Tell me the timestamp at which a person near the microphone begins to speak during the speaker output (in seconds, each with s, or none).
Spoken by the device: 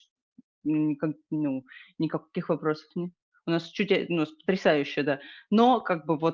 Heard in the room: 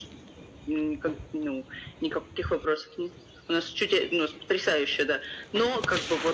none